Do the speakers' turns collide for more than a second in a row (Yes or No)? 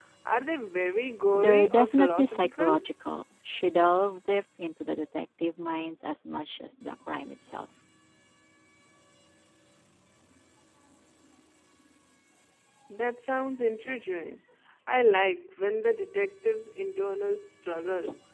Yes